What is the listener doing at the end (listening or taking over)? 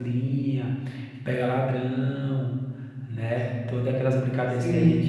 taking over